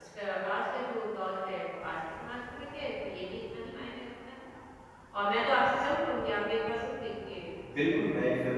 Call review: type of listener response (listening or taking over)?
taking over